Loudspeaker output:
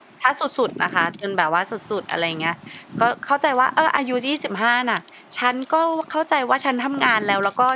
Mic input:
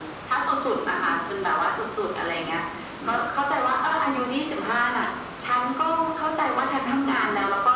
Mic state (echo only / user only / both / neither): echo only